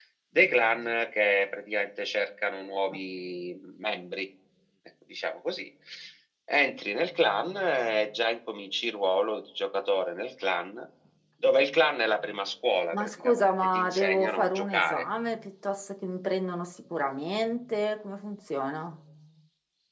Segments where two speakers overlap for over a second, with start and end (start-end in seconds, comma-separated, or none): 12.9-15.0